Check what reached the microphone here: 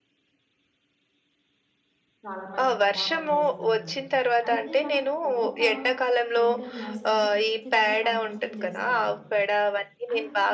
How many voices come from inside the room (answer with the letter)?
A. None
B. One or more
B